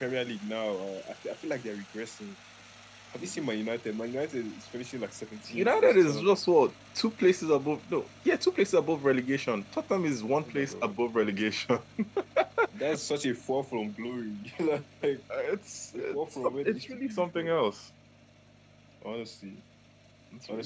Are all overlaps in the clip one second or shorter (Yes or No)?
No